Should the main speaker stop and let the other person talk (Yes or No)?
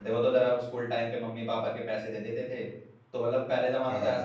No